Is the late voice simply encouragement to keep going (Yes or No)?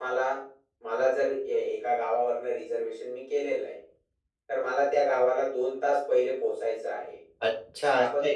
No